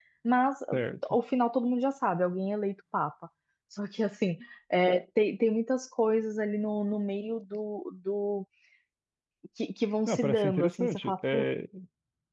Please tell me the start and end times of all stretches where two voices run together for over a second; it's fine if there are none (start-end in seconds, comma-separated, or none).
10.1-11.5